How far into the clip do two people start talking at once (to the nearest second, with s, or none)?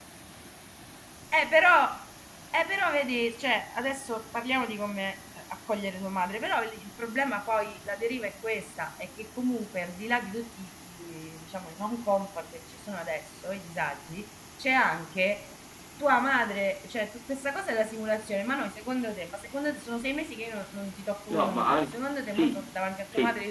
21 s